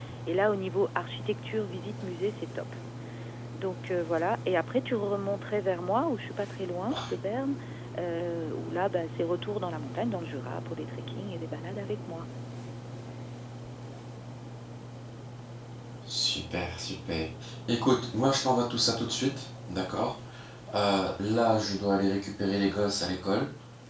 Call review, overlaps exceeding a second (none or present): none